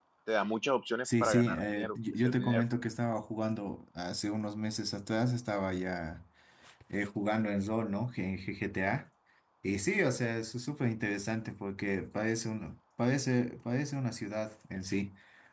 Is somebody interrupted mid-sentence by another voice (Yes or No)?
Yes